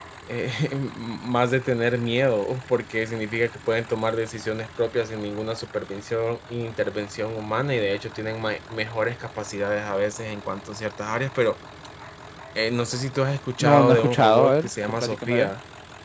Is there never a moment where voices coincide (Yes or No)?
No